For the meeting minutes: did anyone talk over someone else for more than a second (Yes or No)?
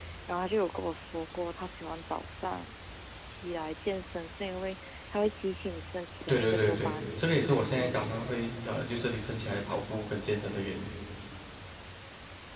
Yes